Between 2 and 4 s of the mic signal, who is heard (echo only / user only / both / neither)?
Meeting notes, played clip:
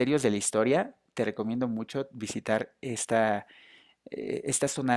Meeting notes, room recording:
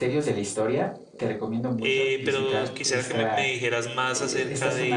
both